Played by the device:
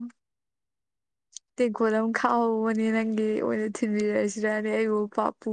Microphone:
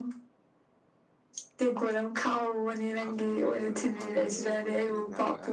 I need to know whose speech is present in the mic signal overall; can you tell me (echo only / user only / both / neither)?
both